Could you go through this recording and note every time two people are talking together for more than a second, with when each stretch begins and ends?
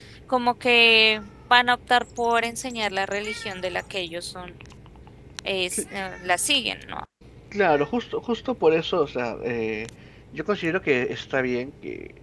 none

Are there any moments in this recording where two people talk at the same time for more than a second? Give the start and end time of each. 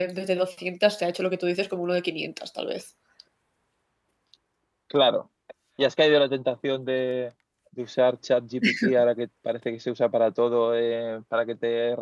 none

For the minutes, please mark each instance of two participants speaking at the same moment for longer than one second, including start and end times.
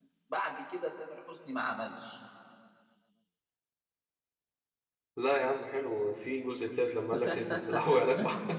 none

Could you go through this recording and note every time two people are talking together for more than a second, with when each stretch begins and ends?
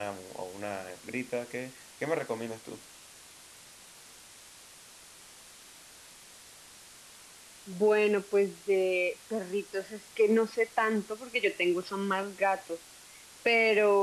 none

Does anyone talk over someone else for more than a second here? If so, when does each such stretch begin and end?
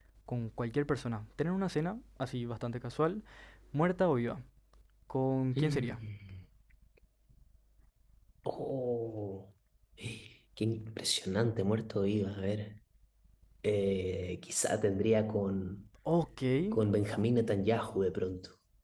none

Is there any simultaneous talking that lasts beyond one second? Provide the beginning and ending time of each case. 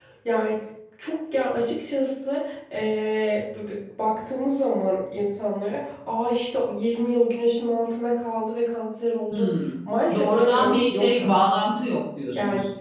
10.1-11.6

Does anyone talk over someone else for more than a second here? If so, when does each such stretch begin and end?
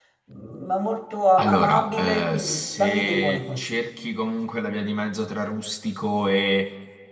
1.4-3.8

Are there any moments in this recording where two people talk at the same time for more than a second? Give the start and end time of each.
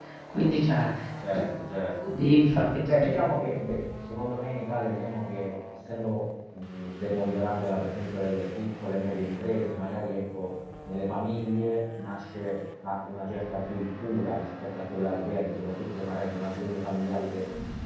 none

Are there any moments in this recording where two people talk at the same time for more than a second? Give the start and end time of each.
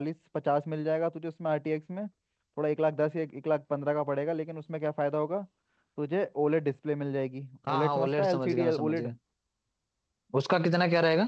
7.7-9.1

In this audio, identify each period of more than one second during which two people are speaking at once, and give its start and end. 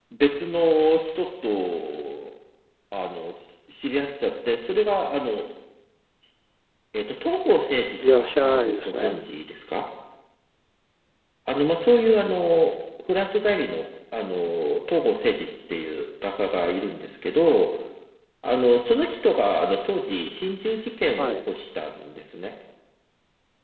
8.1-9.2

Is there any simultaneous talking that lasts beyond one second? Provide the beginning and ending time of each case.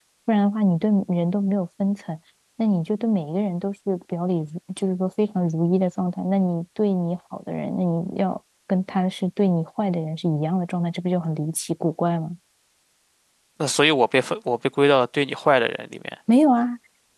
none

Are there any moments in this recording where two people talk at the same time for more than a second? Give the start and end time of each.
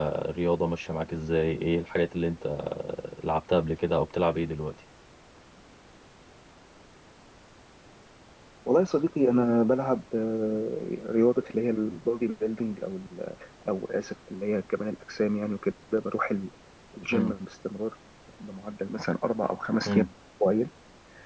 none

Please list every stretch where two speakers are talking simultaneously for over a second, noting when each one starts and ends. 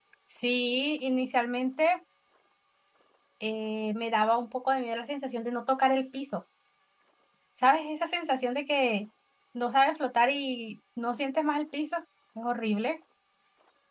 none

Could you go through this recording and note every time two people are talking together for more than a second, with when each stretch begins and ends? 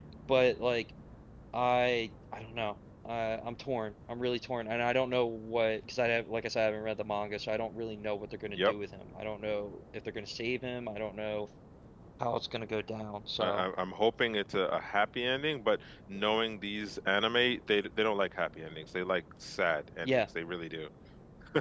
none

